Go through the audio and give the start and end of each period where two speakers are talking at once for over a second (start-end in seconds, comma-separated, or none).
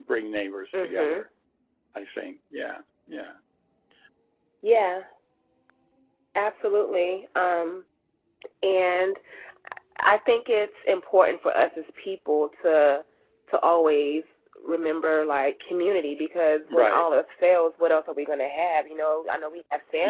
none